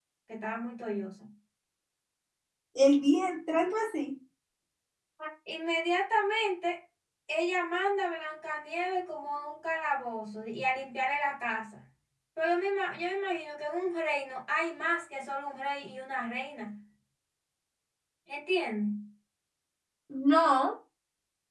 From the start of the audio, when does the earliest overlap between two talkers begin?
none

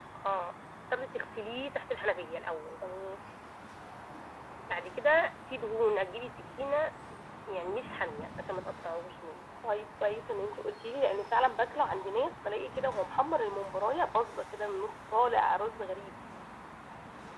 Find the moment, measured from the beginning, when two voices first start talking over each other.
none

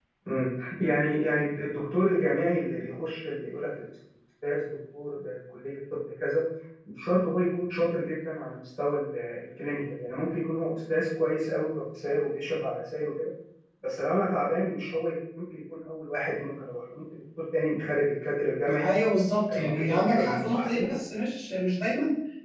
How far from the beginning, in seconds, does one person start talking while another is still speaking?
20 s

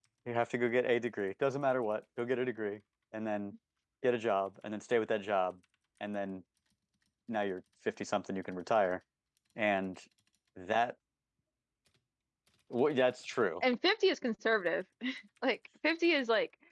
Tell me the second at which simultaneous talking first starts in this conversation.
none

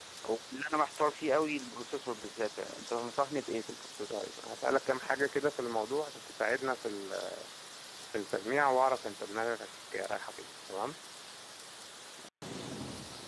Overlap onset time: none

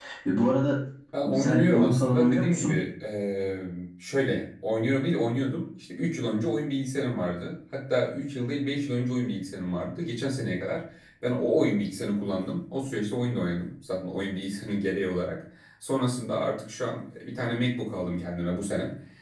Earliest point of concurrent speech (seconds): 1 s

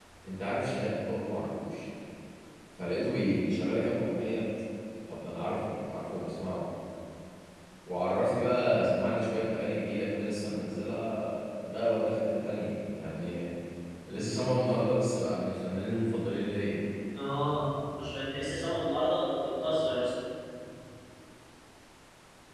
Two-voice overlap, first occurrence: none

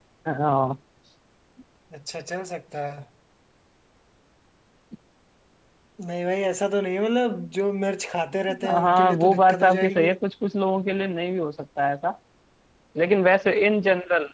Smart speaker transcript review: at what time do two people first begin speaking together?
8 s

